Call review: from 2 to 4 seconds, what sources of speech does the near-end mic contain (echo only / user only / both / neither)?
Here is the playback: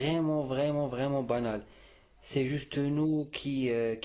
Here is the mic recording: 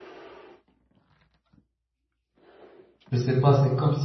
user only